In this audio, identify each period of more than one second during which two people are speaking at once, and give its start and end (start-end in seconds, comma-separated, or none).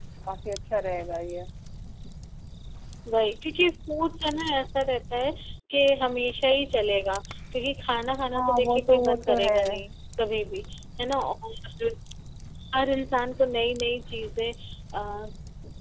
8.4-9.6